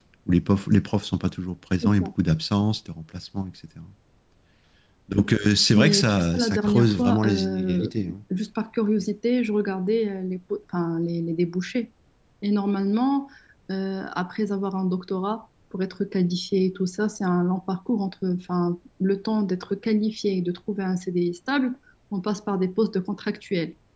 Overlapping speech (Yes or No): Yes